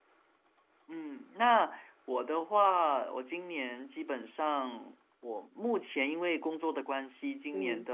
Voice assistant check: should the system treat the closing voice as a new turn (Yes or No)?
No